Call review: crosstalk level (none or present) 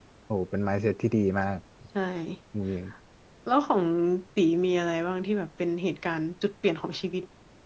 none